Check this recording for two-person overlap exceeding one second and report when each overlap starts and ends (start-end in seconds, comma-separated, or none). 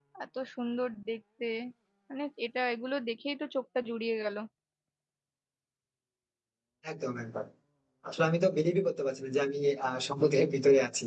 none